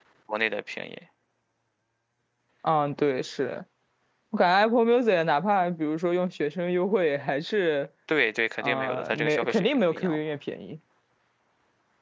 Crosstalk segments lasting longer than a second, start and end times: 8.6-10.2

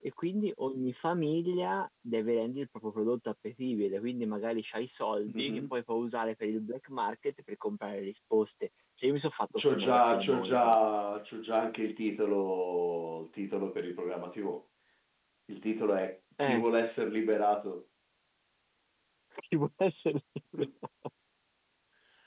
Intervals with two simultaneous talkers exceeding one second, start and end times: 9.6-10.8

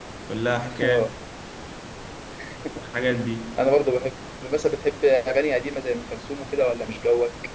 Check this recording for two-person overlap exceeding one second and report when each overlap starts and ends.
none

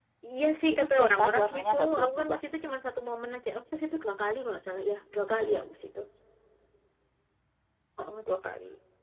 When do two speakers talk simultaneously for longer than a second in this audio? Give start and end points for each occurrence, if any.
0.7-2.4

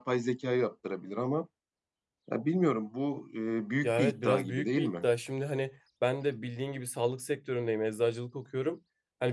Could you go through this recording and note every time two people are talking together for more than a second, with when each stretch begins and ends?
3.8-5.0

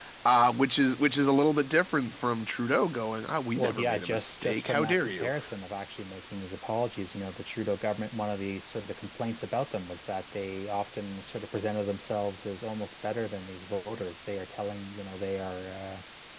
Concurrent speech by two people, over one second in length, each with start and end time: 3.6-5.3

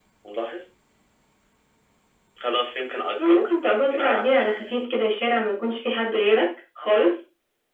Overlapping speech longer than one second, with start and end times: 3.2-4.5

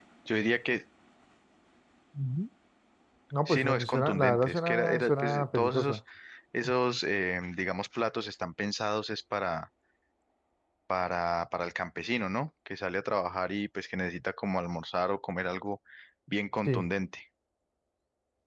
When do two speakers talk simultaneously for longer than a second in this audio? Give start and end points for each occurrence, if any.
3.5-6.0

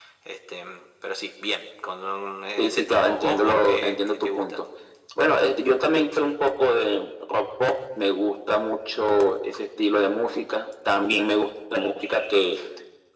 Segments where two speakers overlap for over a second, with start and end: 2.6-4.6

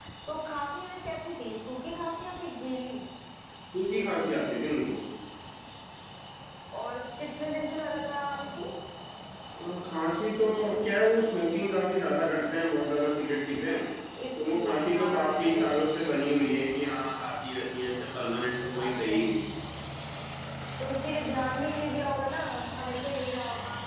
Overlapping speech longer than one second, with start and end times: 14.5-15.7

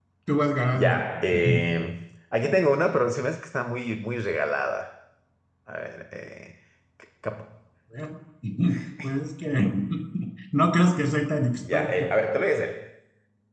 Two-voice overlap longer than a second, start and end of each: none

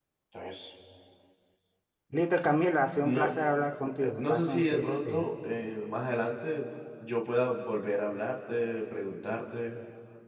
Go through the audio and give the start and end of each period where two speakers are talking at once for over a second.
3.8-5.3

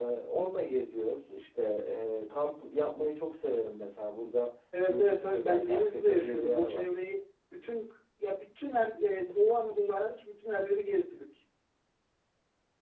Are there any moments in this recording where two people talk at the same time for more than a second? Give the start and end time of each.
4.9-6.9

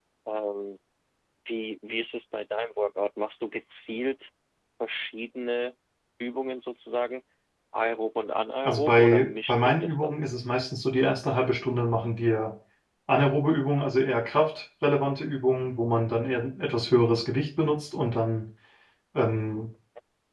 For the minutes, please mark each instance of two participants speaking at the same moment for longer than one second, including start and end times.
8.7-10.2

